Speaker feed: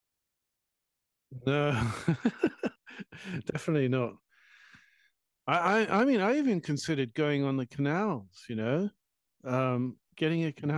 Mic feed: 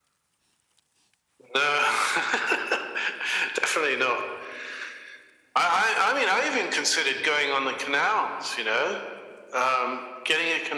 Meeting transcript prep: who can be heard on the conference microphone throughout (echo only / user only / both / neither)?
echo only